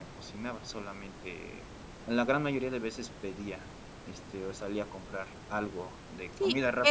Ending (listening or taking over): taking over